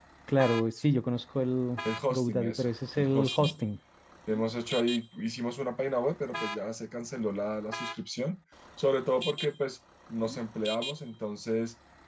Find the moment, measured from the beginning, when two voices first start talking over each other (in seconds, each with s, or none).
1.8 s